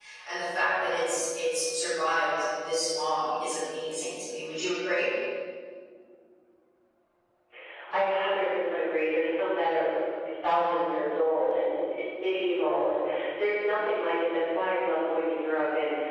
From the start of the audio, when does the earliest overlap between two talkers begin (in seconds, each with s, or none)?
none